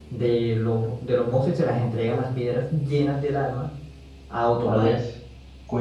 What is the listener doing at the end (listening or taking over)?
taking over